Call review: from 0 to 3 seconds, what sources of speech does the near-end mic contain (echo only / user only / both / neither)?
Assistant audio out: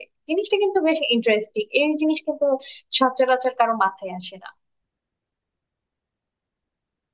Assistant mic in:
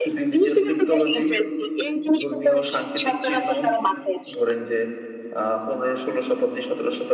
both